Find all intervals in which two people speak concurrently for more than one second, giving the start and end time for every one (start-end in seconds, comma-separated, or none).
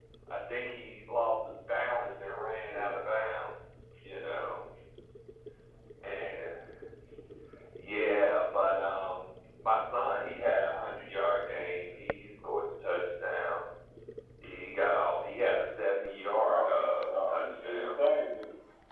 16.5-17.9